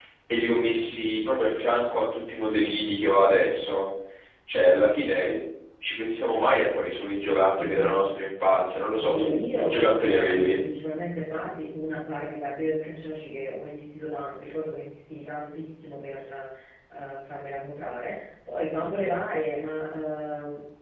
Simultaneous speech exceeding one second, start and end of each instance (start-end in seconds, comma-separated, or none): 9.0-10.6